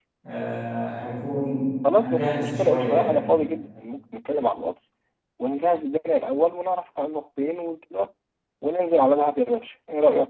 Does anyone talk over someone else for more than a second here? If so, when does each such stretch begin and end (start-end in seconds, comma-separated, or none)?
1.9-3.2